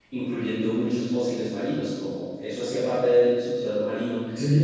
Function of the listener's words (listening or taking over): taking over